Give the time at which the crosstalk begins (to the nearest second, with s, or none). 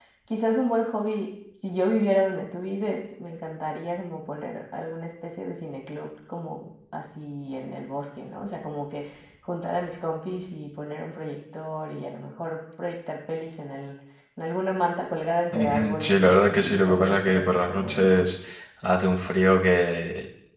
16 s